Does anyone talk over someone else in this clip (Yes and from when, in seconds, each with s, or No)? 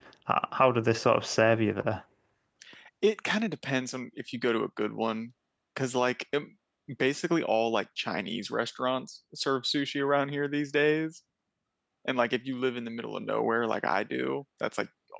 No